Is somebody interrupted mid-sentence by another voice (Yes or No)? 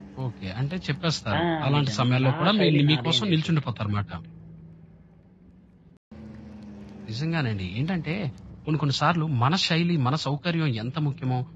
Yes